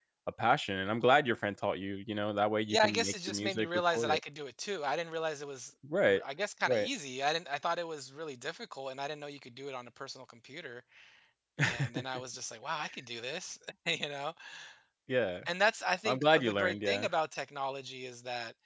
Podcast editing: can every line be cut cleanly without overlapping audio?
No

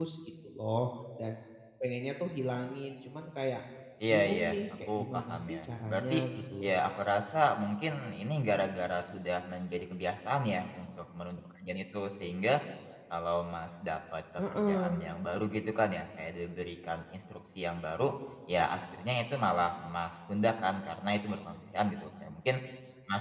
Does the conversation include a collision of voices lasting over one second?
Yes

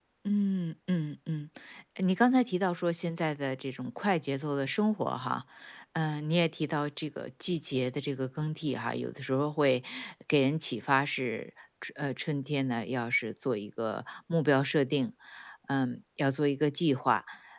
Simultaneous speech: No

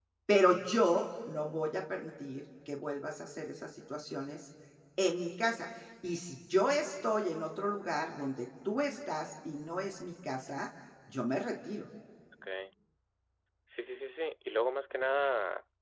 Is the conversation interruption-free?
Yes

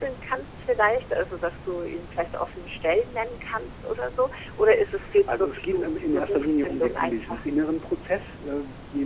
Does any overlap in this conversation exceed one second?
Yes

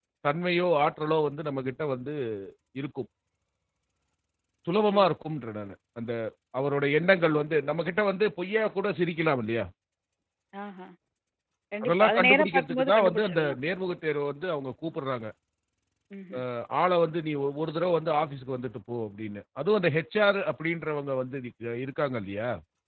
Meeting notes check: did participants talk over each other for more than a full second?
Yes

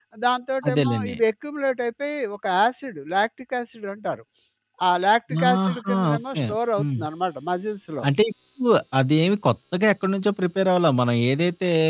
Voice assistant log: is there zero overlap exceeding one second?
No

